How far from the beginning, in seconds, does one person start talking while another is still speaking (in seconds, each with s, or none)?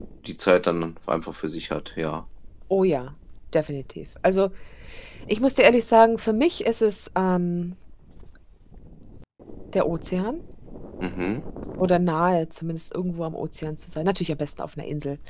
none